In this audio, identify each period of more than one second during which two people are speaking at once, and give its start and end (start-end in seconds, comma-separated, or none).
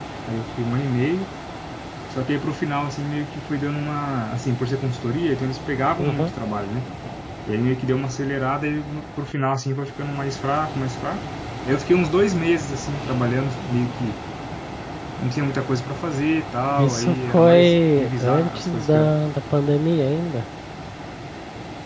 16.8-19.1